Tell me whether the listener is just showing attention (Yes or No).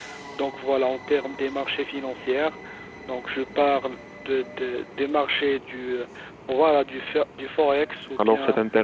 No